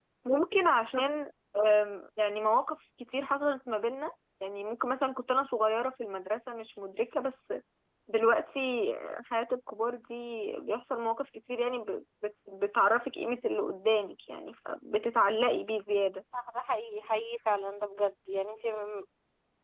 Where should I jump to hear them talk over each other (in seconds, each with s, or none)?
none